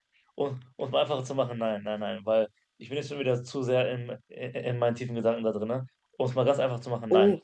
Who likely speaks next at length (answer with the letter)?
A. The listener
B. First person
A